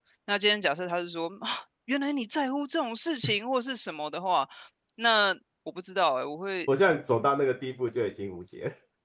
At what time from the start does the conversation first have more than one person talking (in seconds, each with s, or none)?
none